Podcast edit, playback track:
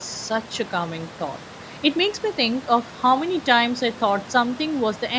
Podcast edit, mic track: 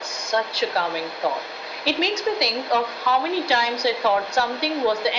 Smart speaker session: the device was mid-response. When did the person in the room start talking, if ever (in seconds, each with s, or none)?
none